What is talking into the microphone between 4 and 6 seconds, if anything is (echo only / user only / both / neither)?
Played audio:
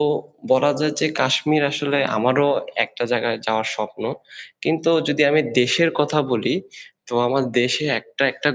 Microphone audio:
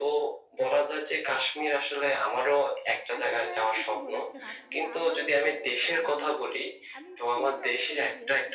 both